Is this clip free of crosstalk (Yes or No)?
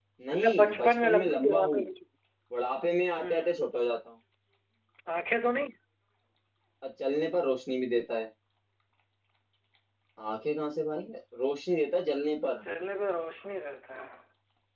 No